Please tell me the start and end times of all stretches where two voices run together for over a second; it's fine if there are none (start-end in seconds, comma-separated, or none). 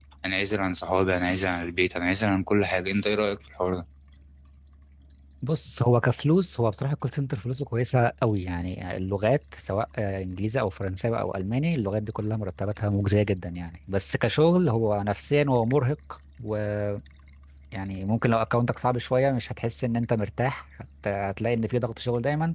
none